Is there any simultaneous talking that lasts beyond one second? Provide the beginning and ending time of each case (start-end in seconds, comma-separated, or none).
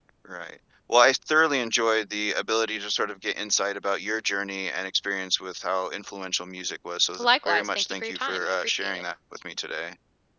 7.2-9.0